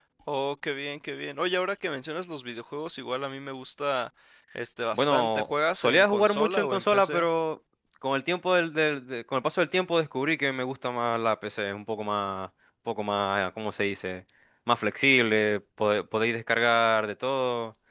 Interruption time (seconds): 4.9 s

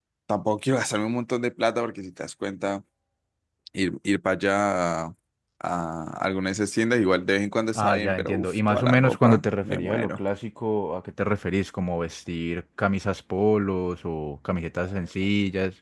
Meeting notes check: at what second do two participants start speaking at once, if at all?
7.8 s

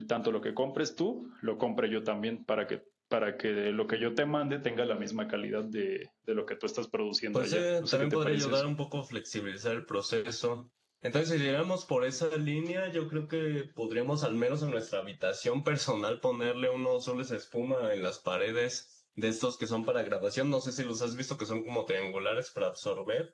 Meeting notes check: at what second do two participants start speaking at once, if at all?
7.3 s

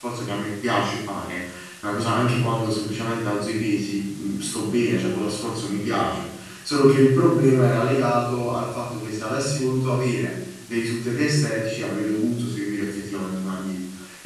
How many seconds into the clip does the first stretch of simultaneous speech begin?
none

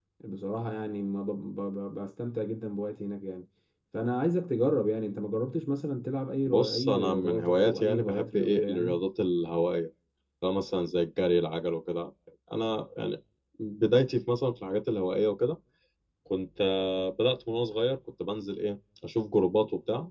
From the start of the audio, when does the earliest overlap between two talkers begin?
6.5 s

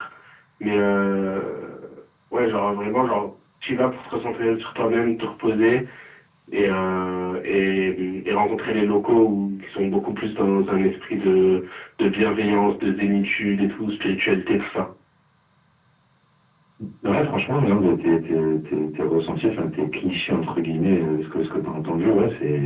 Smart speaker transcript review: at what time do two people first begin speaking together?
none

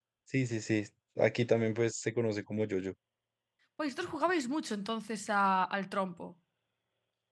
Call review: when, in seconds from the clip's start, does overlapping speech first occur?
none

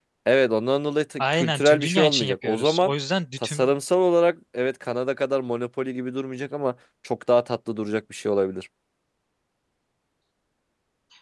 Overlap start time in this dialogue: 1.2 s

